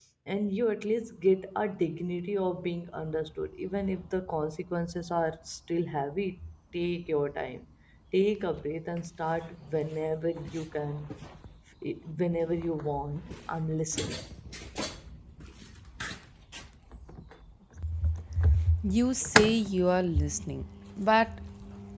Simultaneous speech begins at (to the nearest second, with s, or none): none